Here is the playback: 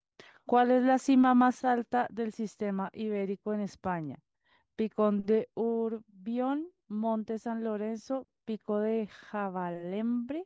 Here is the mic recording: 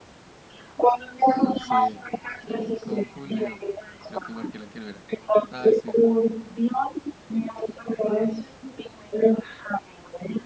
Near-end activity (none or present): present